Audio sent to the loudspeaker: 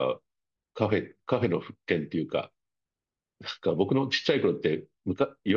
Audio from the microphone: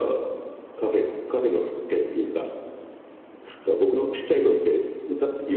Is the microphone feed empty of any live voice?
Yes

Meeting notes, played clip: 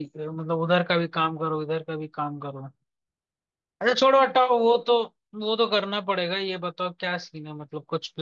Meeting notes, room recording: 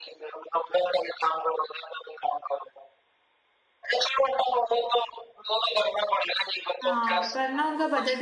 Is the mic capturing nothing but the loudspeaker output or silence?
No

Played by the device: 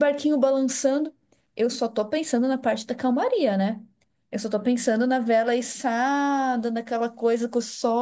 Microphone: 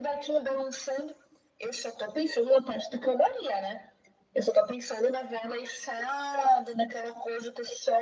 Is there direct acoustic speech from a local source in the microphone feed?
No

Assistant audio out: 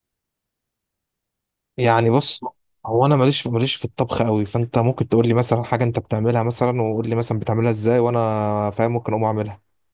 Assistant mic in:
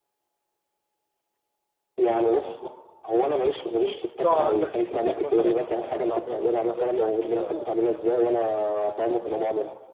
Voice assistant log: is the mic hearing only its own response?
No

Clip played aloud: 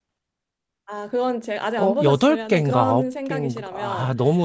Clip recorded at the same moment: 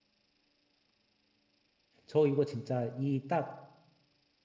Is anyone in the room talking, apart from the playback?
Yes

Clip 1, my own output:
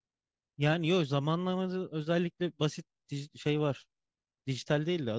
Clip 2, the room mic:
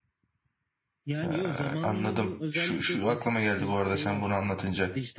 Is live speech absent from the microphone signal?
No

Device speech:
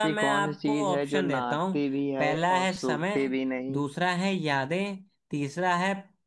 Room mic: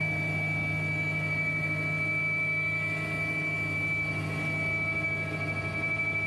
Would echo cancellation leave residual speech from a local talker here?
No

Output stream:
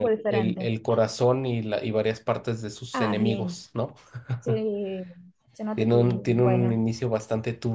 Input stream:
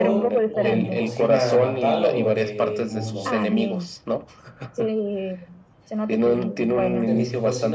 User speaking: Yes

